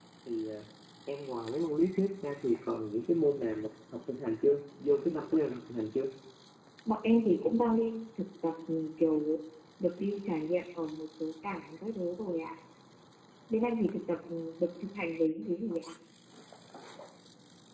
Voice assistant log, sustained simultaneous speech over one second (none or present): none